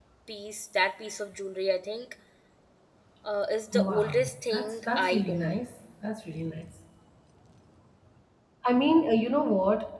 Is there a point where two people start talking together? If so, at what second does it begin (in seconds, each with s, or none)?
3.7 s